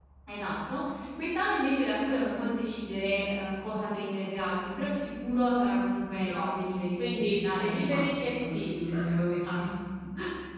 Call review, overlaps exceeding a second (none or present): present